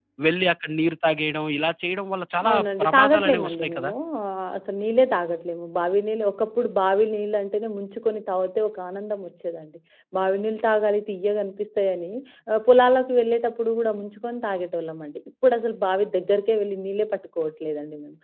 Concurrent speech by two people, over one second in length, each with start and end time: 2.5-3.9

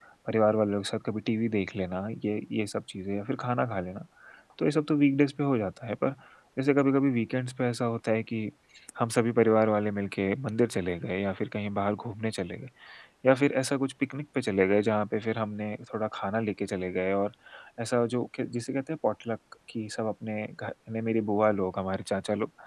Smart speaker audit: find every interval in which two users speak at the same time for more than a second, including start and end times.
none

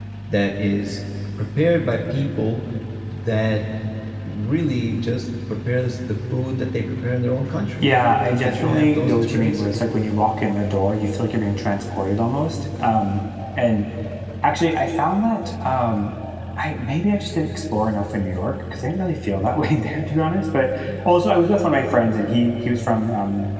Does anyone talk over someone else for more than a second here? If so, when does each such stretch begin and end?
8.4-9.8

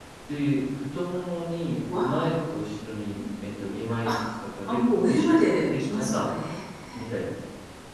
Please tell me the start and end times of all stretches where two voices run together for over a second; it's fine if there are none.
4.7-6.3

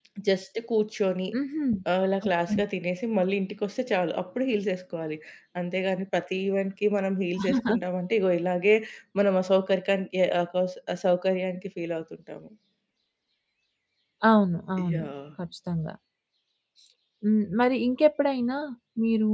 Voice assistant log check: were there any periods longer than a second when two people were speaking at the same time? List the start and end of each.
none

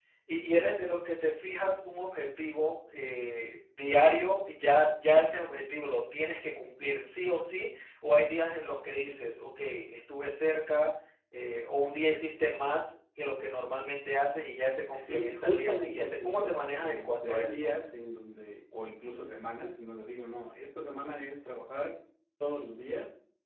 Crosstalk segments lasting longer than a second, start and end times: 14.9-17.7

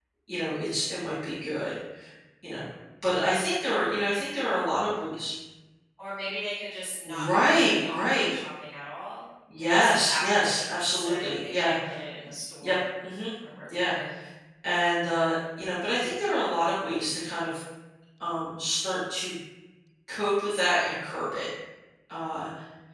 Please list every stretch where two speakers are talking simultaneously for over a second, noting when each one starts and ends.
7.0-8.3, 9.6-11.8

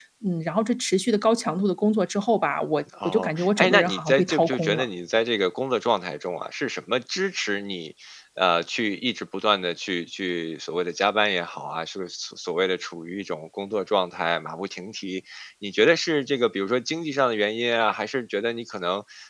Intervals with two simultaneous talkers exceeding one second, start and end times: 3.0-4.9

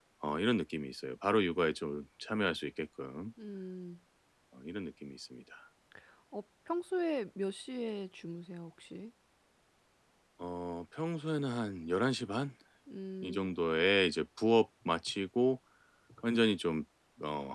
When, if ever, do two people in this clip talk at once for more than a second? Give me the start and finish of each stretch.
none

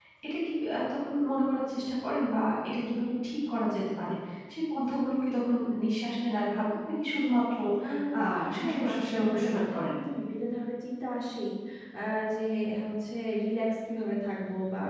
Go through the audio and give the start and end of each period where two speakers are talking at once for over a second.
8.6-9.9

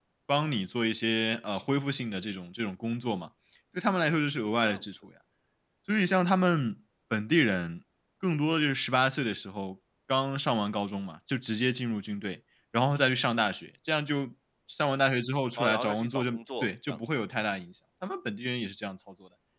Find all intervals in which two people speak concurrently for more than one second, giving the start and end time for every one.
15.6-17.0

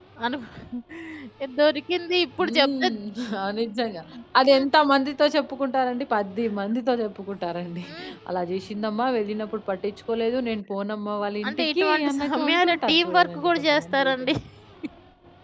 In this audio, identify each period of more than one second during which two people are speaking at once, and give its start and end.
11.5-14.3

